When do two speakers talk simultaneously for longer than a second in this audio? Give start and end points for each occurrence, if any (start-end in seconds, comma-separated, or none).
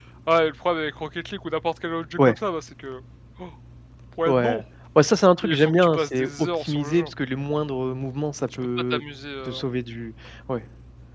5.4-7.1